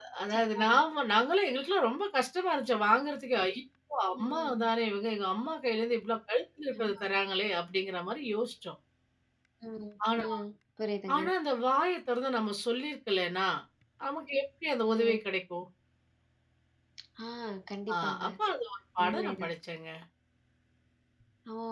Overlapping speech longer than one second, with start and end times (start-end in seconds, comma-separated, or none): none